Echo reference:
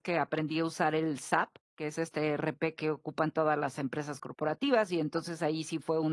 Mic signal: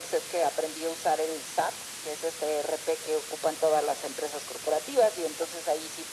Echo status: present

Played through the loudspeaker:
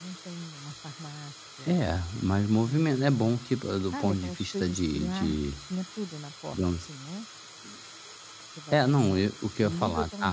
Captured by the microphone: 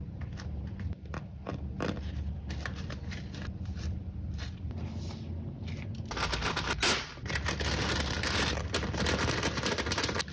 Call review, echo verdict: none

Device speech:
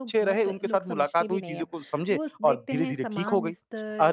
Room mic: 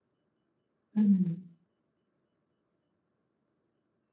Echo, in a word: none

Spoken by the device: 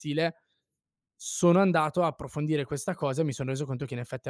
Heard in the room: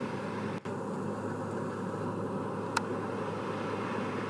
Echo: none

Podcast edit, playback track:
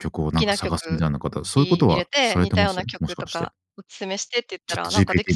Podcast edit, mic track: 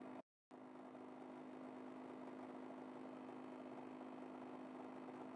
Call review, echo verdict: none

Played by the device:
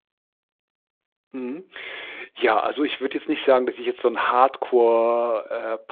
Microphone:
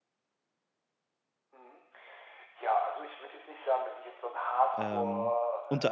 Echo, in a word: present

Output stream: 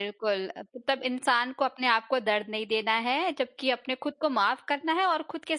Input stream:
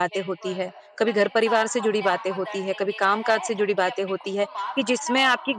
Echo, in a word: present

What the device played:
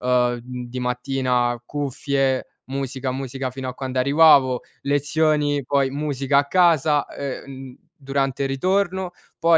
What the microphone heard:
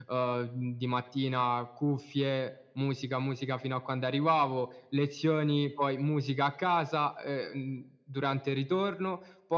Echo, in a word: present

